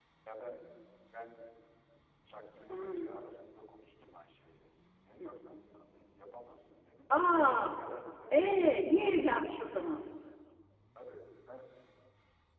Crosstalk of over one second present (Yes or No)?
Yes